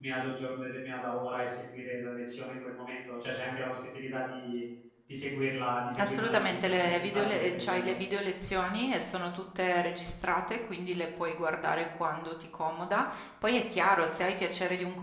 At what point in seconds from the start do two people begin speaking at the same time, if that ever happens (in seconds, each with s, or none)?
5.9 s